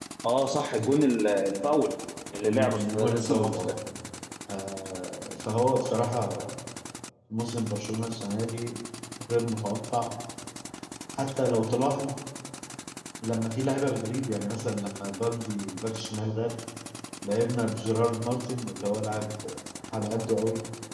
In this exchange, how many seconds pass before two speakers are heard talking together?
2 s

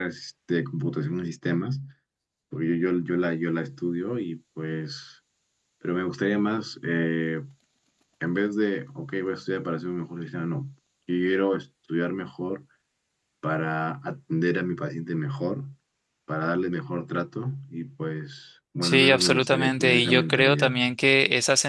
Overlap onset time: 19 s

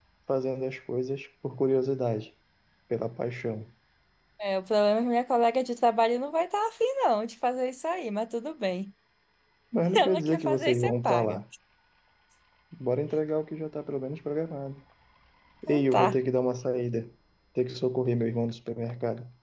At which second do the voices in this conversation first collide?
10 s

